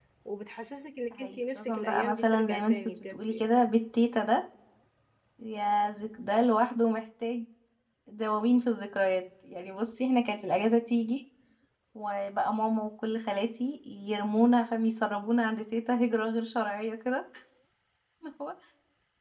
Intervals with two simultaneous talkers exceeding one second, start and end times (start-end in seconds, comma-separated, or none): 1.2-3.5